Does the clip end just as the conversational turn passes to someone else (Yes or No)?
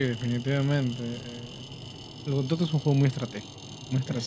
No